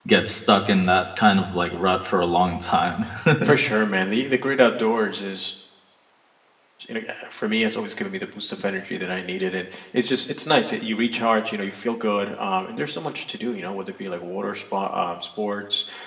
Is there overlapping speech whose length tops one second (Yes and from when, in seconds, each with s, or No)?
No